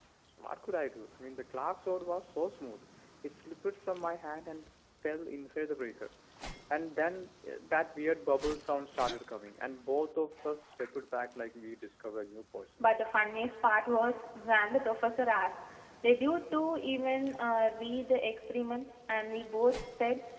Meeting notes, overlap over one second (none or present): none